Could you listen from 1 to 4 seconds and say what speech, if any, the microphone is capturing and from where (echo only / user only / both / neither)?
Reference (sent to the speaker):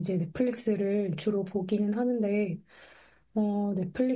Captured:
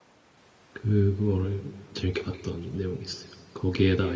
user only